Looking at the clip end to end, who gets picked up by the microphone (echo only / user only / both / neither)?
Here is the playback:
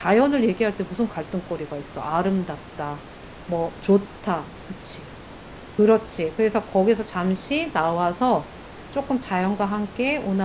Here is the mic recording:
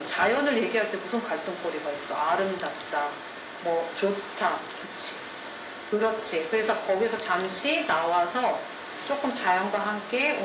echo only